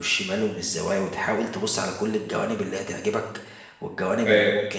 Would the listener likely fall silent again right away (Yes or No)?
Yes